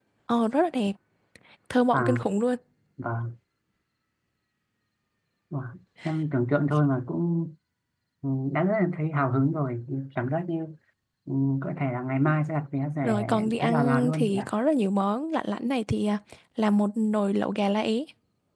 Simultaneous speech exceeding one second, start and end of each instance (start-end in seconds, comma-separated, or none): 13.0-14.5